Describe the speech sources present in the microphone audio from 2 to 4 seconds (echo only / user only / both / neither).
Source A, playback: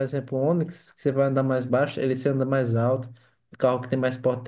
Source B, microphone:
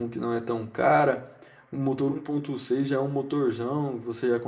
user only